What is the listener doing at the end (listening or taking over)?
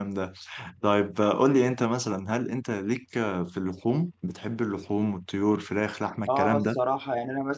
taking over